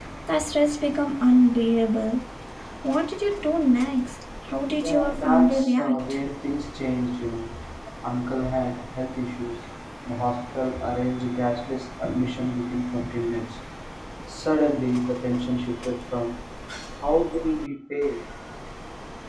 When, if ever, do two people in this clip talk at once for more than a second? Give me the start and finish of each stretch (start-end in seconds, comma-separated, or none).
4.7-6.0